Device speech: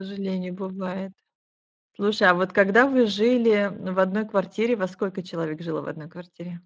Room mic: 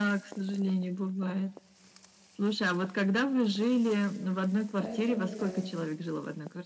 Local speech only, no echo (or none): Поэтому да.